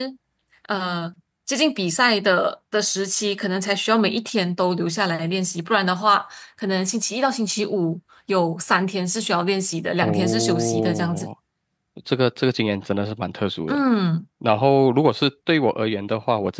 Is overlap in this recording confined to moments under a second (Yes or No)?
No